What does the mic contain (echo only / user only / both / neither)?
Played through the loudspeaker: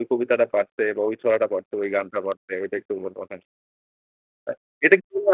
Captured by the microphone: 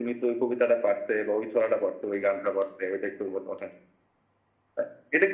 echo only